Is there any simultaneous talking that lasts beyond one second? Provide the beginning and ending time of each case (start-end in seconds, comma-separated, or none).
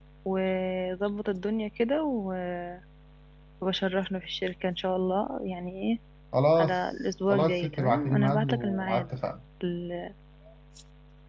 7.3-9.1